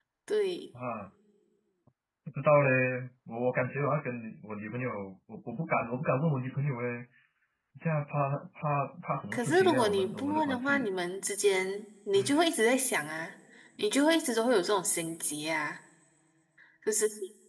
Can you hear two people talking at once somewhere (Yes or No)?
Yes